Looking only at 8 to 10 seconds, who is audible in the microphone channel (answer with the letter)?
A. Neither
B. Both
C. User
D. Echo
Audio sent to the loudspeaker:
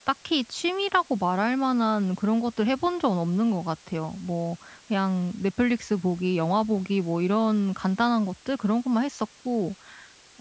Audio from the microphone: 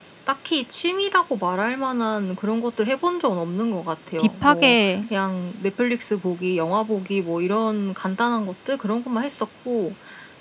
D